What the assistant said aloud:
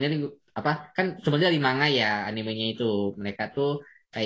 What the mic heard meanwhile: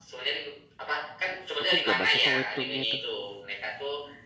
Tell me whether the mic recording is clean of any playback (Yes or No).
No